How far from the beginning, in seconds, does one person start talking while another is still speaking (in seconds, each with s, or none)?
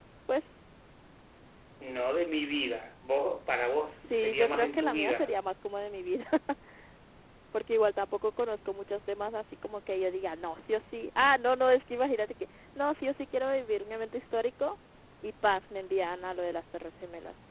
4.0 s